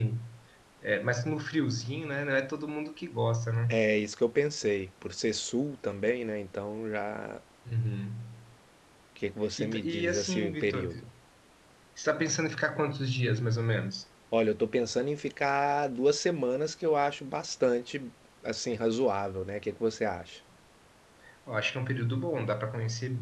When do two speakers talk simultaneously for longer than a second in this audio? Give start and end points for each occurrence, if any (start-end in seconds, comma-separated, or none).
9.6-10.9